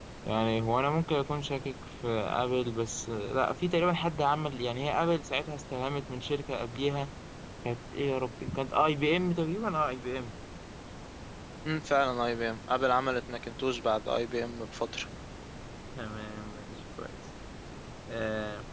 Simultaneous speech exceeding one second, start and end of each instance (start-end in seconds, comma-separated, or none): none